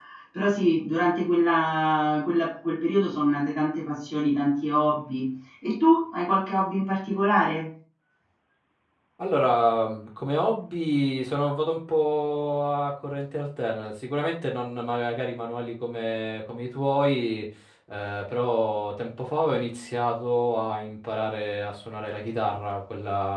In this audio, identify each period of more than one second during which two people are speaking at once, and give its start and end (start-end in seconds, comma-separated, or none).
none